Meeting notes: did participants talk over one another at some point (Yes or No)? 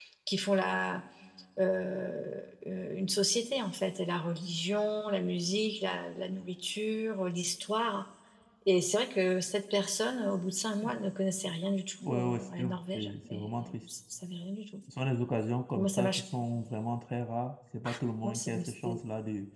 Yes